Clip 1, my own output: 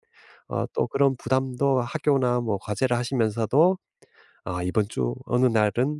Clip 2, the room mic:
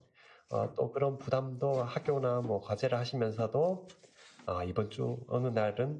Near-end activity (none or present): none